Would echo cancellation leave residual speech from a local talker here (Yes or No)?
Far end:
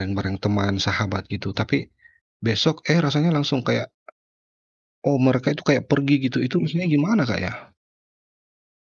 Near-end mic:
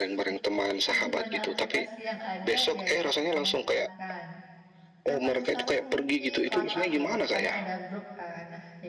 Yes